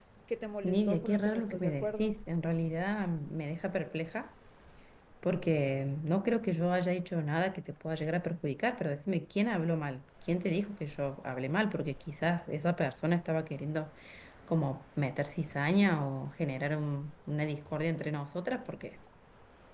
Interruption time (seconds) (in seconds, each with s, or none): 0.6 s